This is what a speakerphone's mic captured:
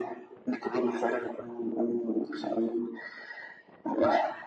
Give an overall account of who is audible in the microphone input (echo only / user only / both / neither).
echo only